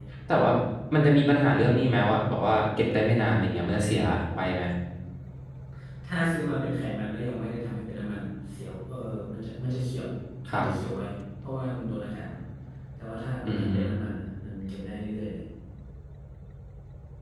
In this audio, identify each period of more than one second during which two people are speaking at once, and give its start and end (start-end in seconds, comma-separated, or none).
none